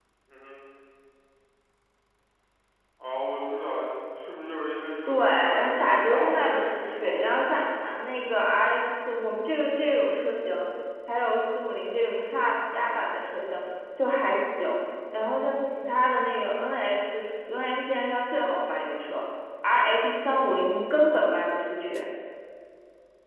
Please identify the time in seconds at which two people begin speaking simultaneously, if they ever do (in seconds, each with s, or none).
5.0 s